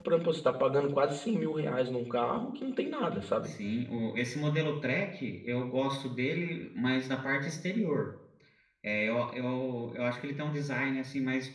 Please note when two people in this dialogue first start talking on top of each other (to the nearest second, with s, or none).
none